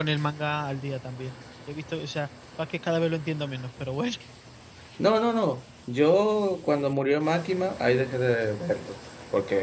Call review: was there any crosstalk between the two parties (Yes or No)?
No